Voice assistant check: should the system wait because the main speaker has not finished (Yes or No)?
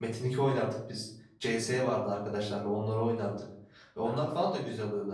Yes